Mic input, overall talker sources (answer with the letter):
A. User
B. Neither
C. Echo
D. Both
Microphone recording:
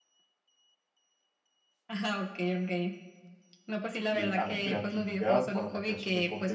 D